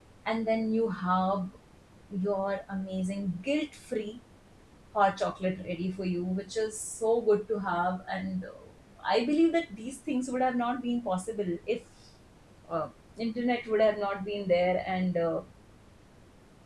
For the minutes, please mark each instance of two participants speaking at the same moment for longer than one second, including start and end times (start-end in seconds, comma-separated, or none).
none